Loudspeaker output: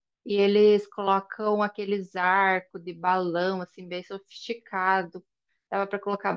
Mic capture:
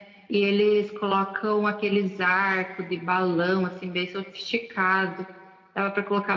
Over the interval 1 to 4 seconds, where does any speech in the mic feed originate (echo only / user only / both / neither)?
echo only